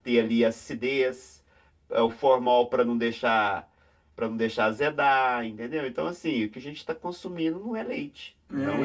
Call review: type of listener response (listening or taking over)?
taking over